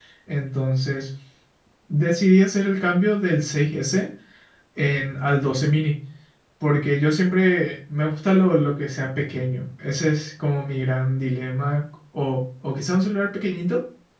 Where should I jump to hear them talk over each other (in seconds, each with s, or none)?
none